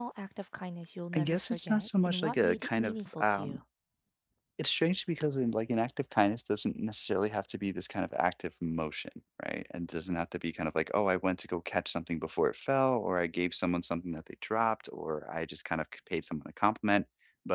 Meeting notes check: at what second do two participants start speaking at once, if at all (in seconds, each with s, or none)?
1.1 s